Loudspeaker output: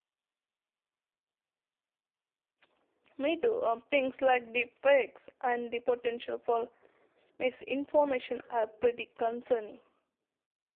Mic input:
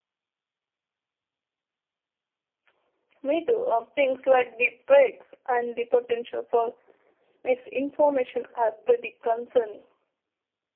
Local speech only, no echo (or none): none